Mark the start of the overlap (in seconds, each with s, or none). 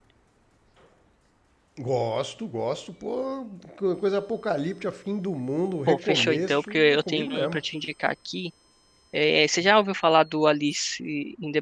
5.9 s